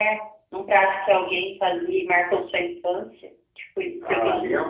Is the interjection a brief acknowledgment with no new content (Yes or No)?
No